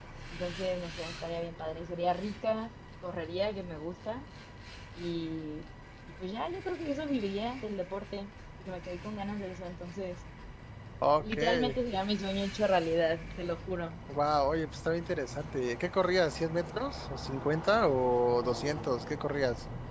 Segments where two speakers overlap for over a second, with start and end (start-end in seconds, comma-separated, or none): none